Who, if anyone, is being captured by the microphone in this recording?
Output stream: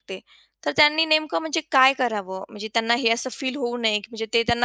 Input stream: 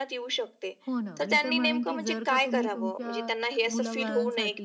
both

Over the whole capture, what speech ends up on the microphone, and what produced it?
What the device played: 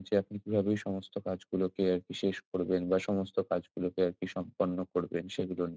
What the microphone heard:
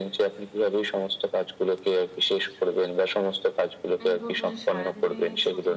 both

